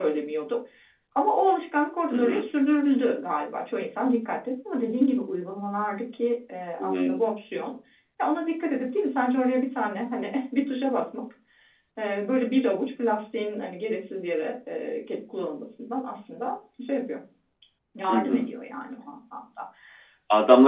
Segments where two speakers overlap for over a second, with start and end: none

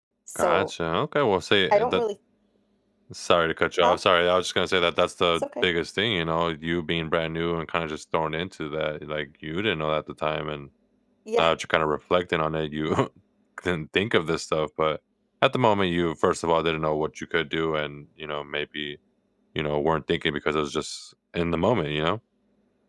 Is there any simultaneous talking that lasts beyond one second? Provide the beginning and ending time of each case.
none

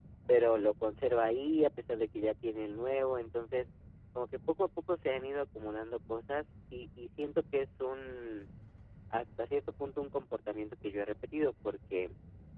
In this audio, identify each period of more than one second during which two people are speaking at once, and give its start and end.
none

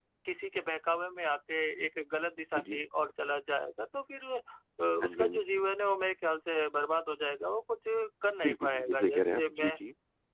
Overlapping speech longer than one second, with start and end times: 8.4-9.7

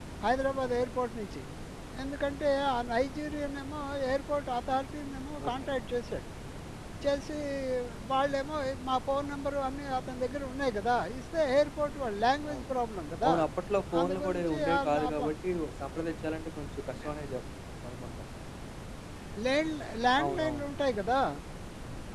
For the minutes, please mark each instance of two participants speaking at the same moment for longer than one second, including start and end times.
14.0-15.3

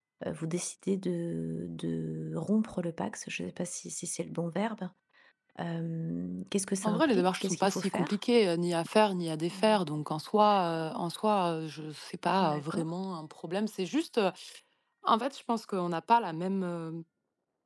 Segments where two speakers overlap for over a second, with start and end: 6.8-8.2

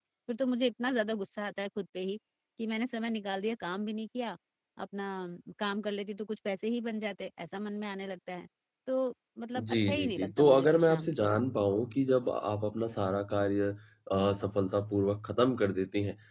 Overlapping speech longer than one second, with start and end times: 9.6-11.3

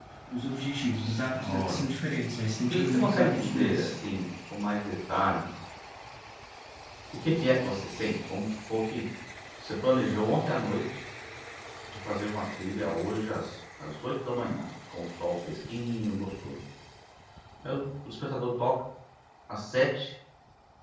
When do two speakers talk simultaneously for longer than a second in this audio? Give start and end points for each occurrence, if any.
2.7-3.9

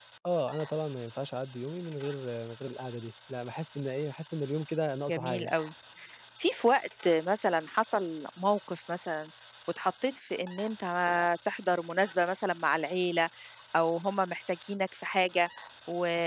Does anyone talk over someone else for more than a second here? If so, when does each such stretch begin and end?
none

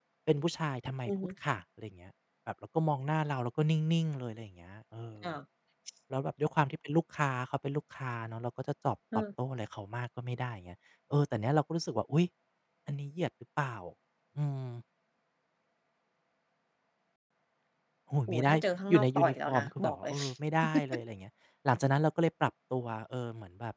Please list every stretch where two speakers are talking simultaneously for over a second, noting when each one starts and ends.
18.9-20.1

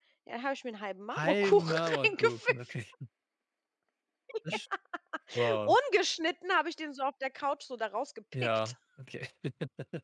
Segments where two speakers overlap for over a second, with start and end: 1.1-2.6

